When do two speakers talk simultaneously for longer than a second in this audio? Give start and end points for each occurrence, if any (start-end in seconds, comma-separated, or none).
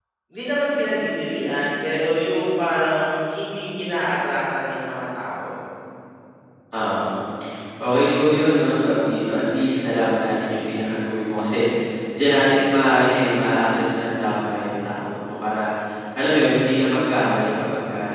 none